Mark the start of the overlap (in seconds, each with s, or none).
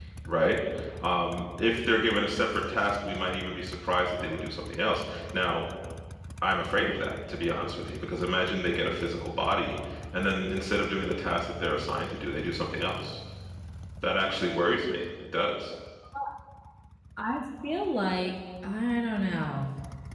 none